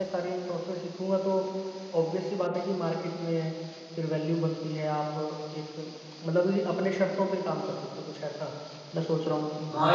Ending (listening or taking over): taking over